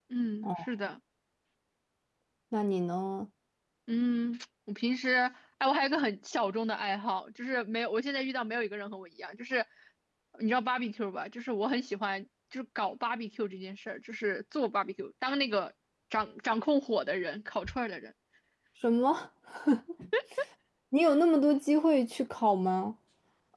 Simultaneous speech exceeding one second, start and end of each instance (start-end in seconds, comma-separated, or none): none